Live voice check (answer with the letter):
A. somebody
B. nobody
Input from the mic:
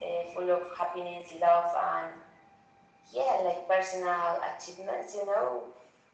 B